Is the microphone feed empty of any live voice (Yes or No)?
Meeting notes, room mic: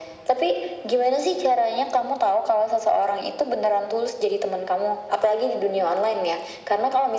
Yes